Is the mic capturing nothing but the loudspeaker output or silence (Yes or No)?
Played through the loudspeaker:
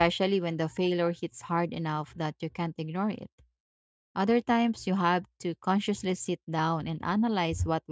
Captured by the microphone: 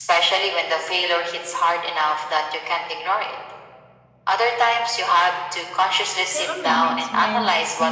No